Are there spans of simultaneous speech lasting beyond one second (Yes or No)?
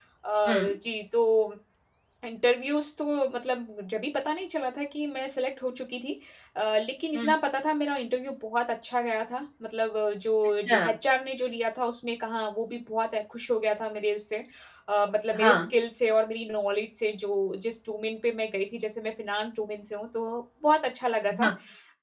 No